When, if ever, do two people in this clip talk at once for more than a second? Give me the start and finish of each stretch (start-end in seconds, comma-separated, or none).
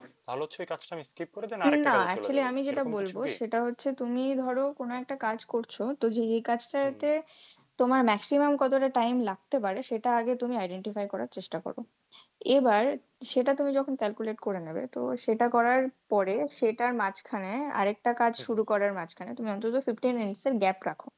1.9-3.3